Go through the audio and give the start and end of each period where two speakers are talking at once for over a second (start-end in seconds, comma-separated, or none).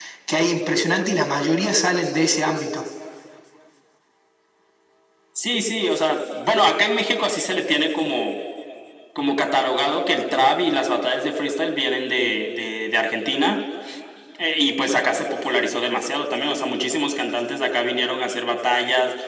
none